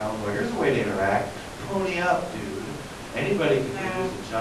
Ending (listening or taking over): listening